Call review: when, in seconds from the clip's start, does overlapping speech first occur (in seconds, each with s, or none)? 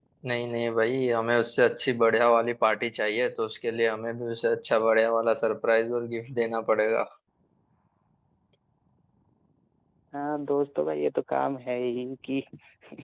none